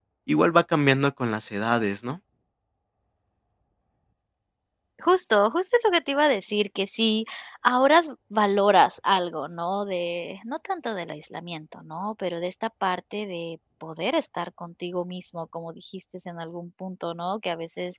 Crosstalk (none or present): none